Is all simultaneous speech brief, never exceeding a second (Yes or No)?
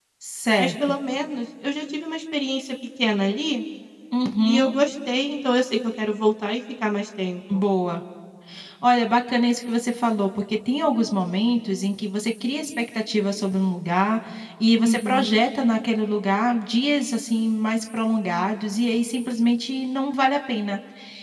Yes